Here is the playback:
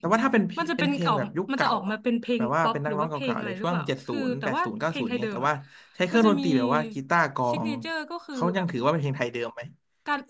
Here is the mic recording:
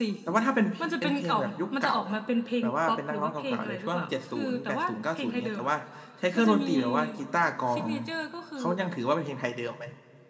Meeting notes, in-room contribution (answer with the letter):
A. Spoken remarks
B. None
B